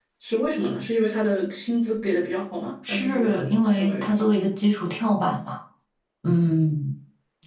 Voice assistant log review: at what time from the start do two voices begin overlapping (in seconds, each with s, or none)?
2.9 s